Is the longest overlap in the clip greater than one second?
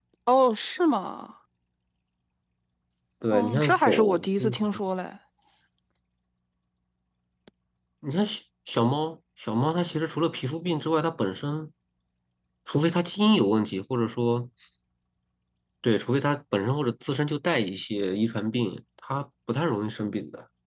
Yes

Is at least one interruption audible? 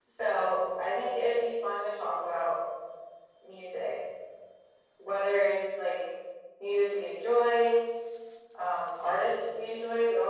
No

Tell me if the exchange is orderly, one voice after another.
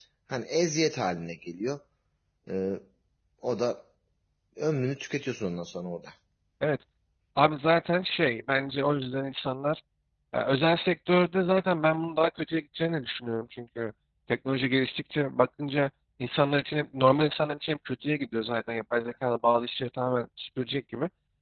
Yes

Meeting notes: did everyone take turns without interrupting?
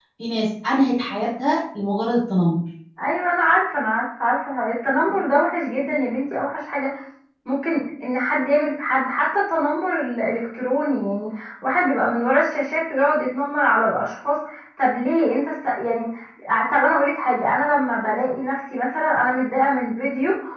Yes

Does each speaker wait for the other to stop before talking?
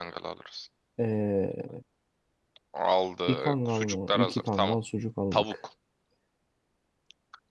No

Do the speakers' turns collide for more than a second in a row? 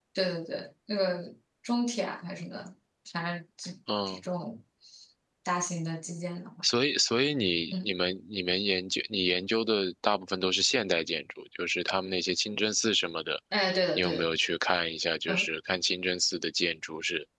No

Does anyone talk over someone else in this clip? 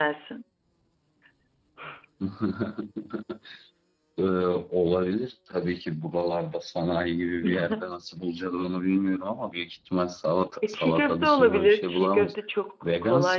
Yes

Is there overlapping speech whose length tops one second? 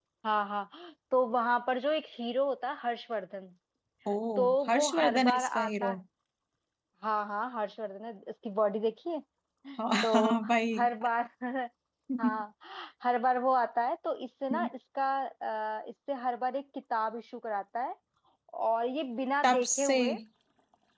Yes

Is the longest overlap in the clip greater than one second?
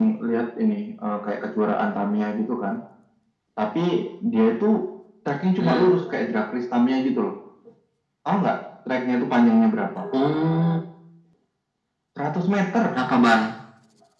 No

